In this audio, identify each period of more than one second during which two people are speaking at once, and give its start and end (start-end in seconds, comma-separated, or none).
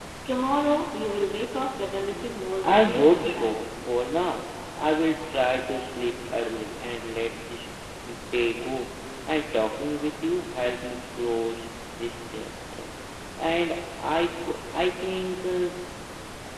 2.0-3.6